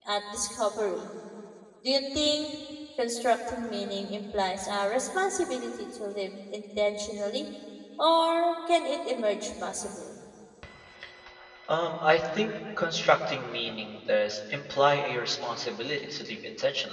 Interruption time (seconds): none

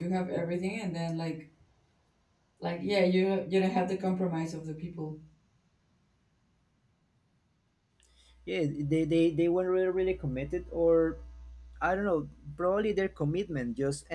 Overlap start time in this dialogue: none

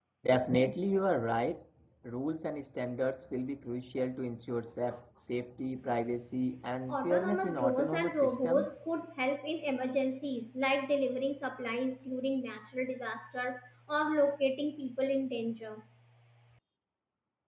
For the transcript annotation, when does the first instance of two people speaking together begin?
7 s

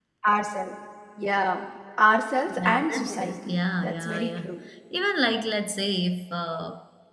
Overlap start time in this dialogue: 2 s

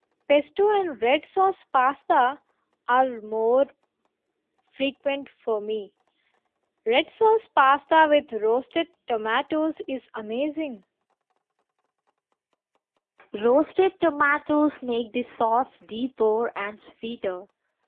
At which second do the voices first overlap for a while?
none

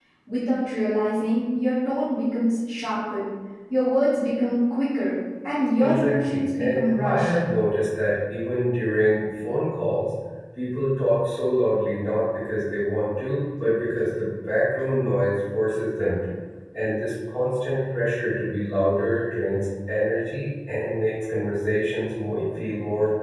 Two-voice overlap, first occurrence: 6 s

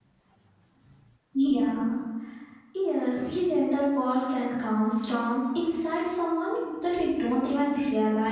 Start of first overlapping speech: none

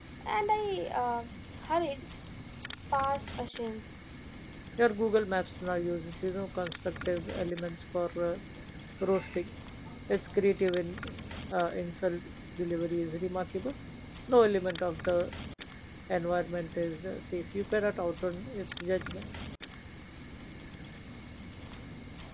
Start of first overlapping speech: none

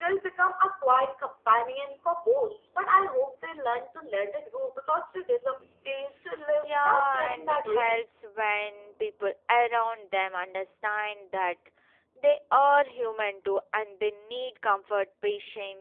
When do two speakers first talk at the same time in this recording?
7 s

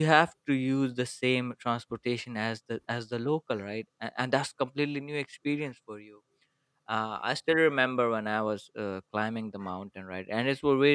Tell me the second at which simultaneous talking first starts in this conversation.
none

